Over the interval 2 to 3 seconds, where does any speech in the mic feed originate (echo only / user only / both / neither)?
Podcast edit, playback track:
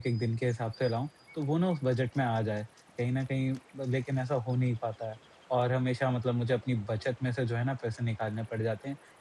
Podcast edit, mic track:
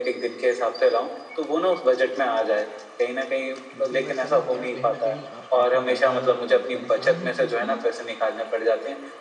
echo only